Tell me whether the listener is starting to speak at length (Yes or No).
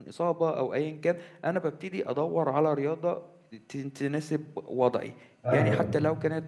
No